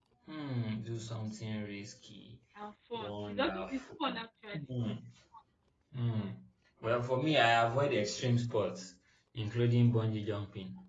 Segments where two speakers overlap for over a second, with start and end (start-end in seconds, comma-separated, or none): 3.0-4.2